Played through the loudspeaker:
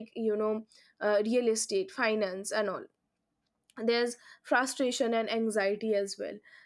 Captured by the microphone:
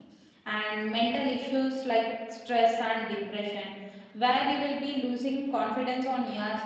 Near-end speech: present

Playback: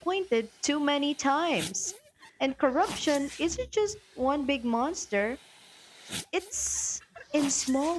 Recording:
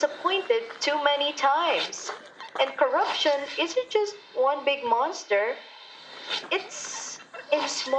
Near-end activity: none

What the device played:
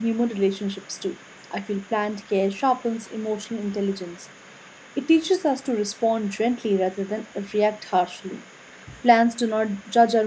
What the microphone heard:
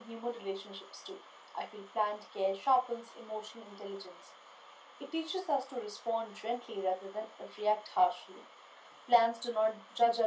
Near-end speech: none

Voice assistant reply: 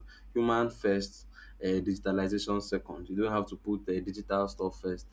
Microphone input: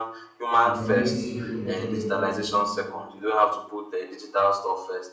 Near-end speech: present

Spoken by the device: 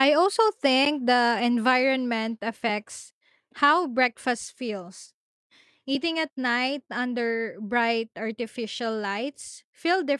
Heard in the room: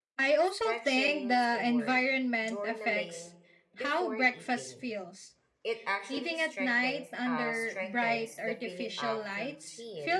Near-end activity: present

